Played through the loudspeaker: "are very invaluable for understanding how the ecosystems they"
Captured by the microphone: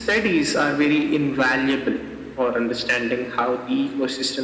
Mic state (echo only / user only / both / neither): echo only